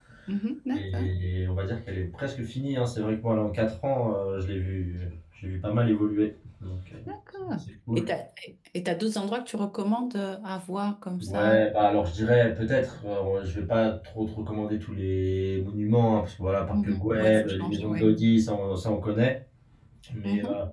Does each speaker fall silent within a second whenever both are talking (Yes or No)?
No